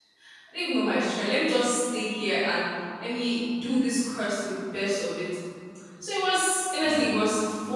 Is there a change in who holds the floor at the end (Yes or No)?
No